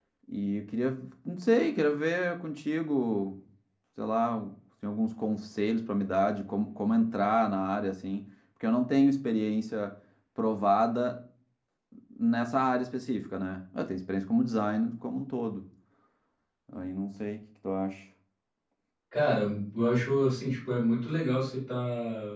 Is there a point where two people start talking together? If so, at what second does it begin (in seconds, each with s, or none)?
none